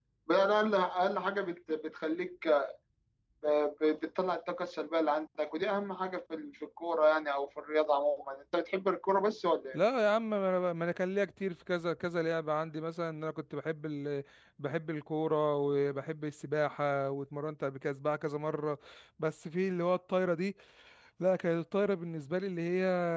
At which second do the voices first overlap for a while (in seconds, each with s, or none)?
none